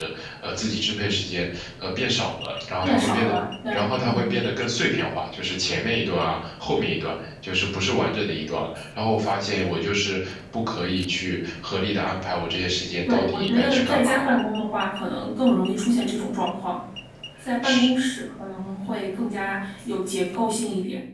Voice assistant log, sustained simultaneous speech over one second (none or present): present